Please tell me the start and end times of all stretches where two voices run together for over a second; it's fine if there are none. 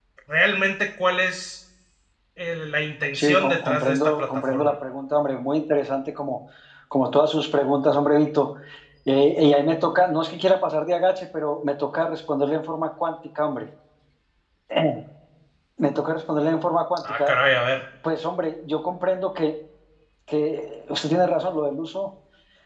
3.1-4.8

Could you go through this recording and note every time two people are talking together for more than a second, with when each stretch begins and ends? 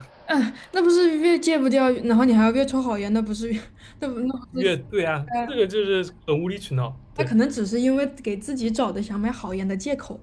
none

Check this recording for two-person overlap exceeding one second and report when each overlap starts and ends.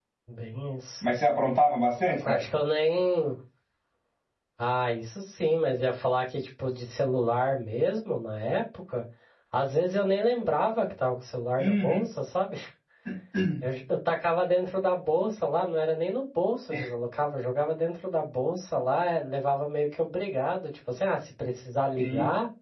none

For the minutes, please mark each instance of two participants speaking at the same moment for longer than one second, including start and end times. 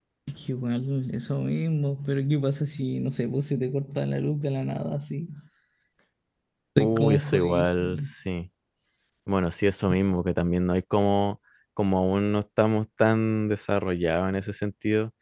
6.8-8.1

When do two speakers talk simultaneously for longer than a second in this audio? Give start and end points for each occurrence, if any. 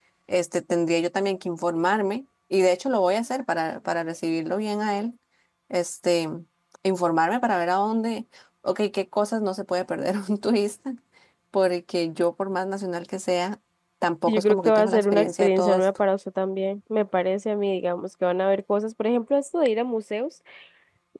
14.3-15.8

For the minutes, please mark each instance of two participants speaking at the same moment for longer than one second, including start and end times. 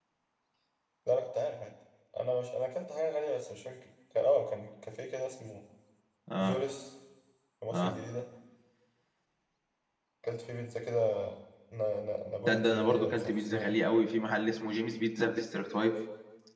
12.5-13.8

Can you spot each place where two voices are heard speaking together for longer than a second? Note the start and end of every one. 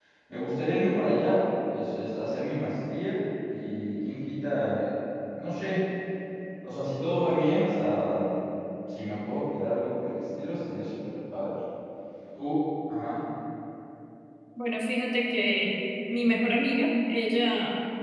none

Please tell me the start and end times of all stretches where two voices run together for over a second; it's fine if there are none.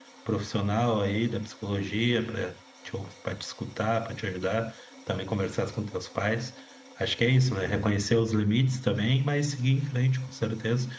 none

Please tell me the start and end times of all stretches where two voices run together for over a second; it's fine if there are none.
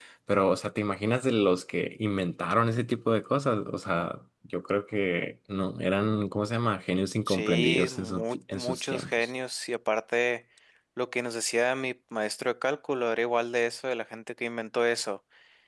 7.3-9.3

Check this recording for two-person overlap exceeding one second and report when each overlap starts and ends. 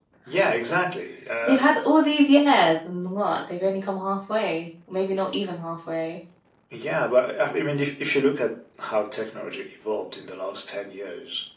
none

